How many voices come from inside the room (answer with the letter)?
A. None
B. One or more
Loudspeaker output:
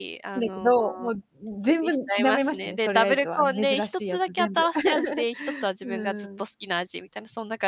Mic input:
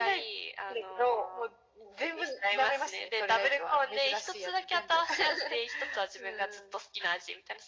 A